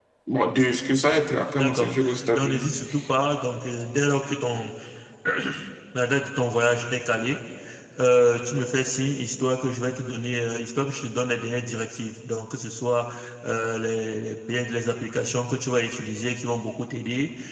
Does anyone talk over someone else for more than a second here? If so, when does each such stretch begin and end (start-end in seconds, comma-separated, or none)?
1.5-2.7